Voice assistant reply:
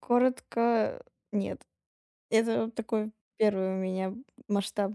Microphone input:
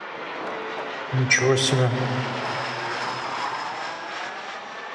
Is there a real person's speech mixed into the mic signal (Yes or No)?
Yes